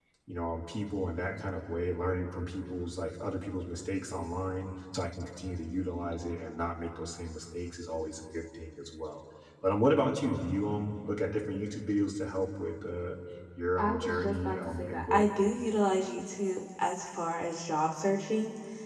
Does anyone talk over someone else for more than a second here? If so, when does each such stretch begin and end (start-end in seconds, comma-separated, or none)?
13.8-15.3